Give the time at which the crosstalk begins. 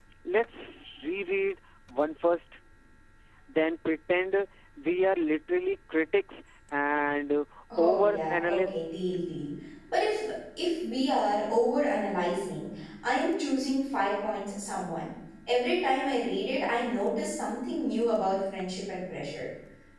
8 s

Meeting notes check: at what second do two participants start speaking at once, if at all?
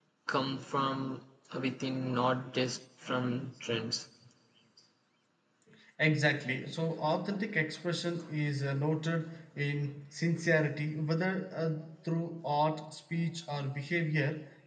none

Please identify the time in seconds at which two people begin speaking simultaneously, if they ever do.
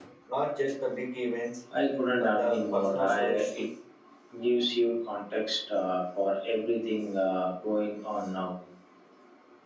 2 s

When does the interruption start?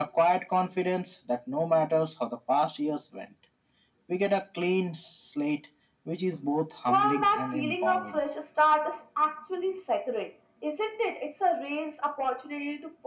7 s

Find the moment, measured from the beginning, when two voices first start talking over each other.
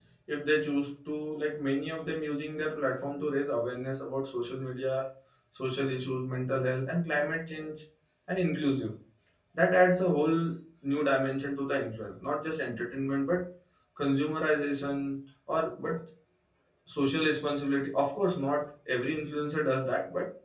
none

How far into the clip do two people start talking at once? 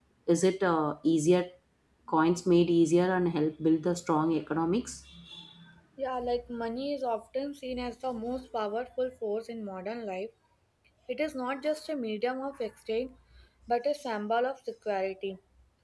none

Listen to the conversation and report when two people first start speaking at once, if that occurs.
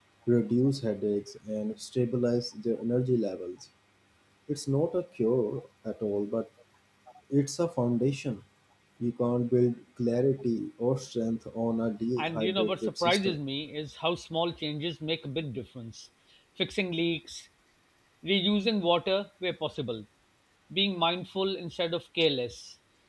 12 s

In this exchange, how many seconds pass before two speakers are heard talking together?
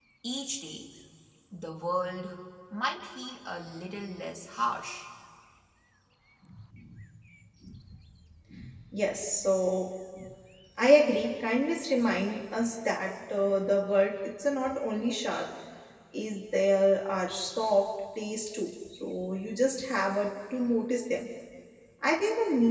none

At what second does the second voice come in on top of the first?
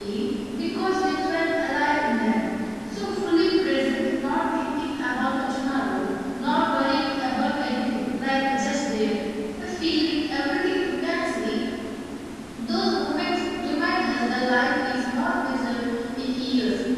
none

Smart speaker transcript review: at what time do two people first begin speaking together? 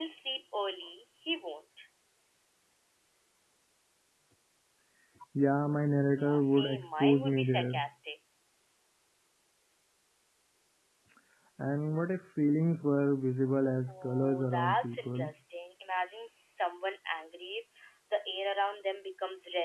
6 s

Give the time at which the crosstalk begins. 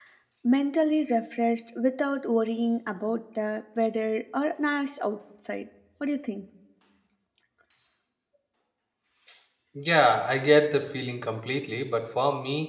none

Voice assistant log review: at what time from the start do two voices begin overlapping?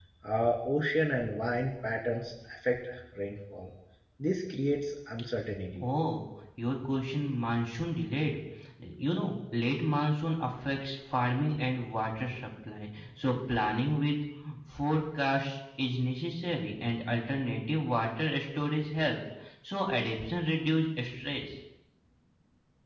none

